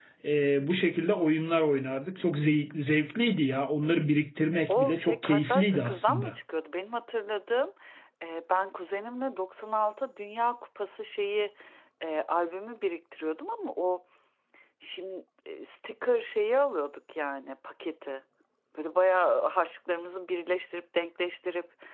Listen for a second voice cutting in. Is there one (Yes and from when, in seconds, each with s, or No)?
Yes, from 4.7 s